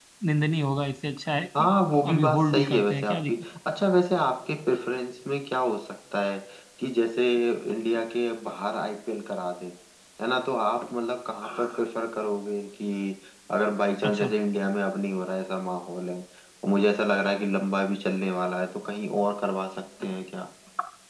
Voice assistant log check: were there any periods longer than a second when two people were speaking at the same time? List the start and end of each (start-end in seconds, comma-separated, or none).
2.1-3.4